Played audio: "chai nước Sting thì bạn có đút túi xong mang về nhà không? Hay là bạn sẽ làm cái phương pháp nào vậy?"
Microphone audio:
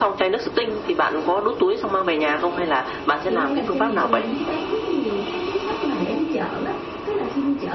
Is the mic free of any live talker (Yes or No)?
No